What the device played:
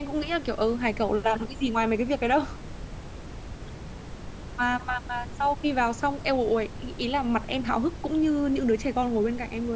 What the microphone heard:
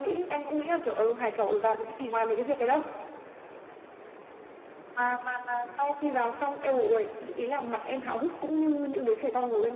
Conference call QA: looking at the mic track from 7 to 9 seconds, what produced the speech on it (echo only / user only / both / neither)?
echo only